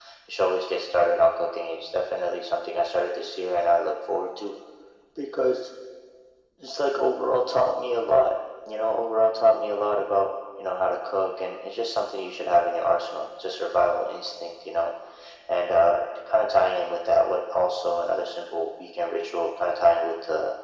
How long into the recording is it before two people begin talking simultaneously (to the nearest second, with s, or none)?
none